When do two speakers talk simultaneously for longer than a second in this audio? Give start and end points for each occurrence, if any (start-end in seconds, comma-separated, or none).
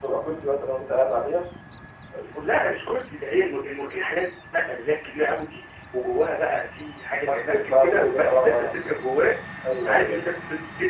7.2-8.7